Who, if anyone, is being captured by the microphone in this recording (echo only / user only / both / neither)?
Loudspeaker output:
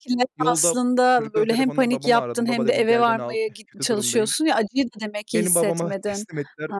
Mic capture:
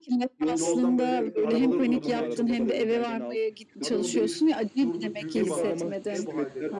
both